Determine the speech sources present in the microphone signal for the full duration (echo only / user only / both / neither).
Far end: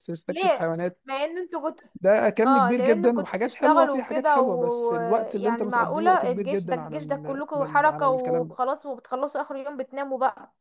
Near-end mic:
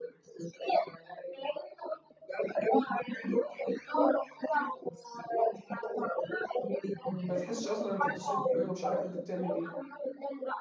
both